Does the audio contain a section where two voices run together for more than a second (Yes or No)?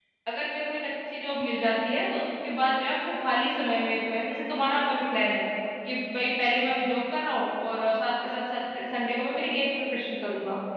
No